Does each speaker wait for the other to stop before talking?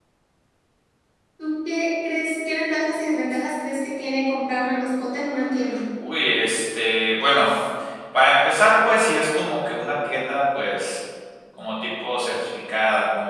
Yes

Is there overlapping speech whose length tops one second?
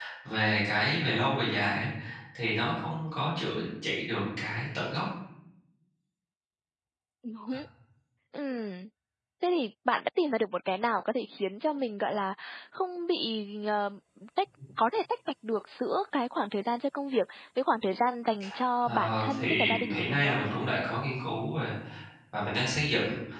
Yes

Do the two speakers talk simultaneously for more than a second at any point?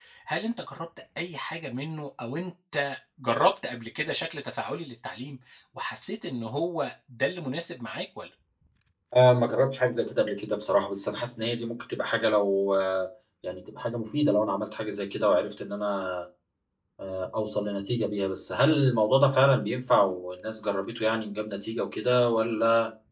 No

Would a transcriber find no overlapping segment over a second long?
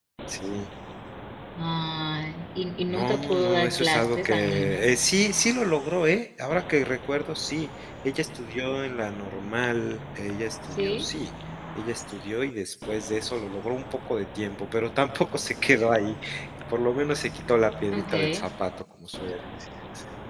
No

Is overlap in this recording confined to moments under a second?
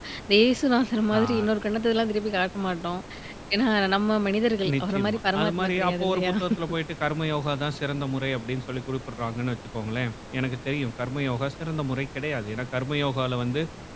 No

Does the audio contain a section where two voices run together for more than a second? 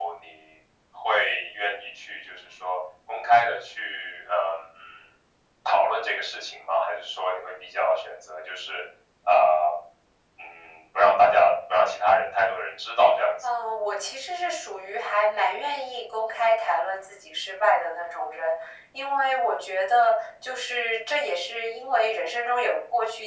No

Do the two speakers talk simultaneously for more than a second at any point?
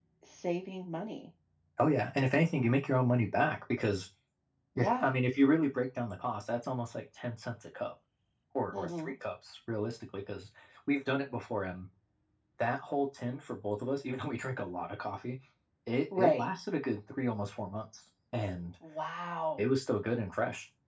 No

